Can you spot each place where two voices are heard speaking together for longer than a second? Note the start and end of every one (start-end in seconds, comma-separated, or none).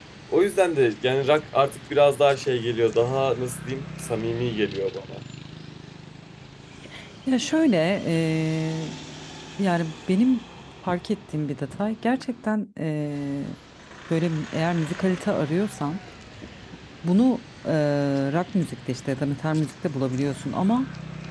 none